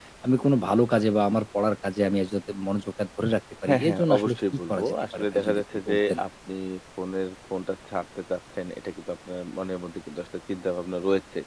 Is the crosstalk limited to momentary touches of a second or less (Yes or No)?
No